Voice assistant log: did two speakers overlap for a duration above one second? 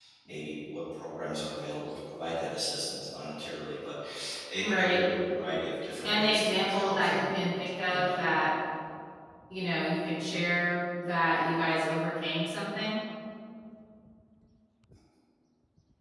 Yes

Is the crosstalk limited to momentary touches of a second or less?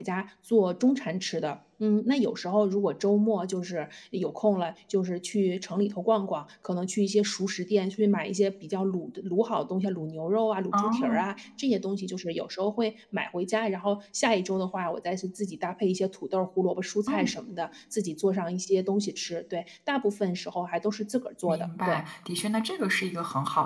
Yes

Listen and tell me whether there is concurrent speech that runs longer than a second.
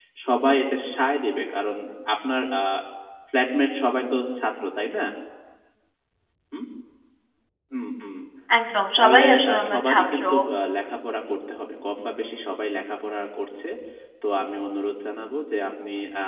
Yes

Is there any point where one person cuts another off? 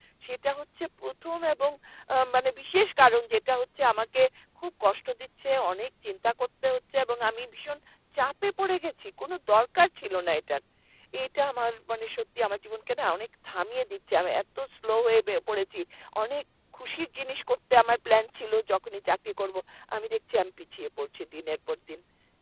No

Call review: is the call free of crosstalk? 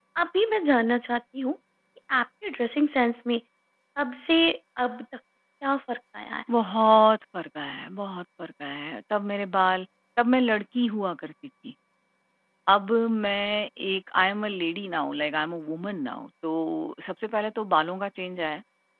Yes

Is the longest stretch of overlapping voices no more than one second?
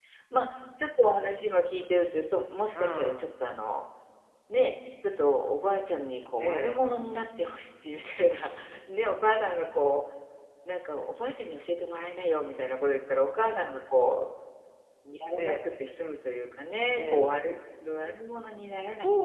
Yes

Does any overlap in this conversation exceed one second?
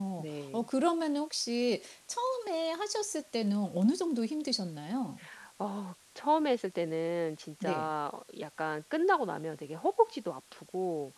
No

